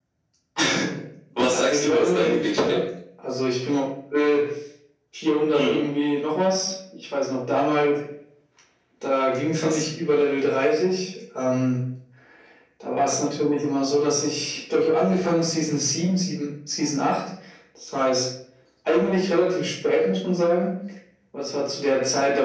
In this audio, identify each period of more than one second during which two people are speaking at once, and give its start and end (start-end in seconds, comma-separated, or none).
1.5-2.8